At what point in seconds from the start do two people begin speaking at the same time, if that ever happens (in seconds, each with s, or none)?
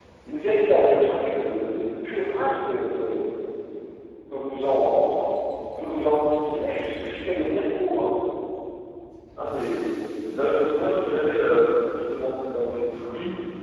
none